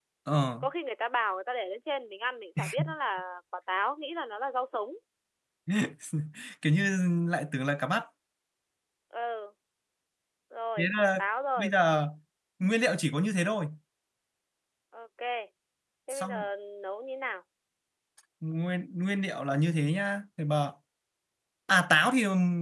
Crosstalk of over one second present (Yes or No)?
No